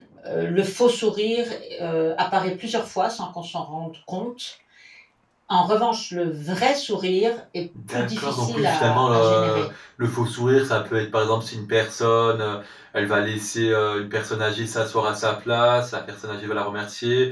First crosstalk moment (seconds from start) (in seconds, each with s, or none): 7.9 s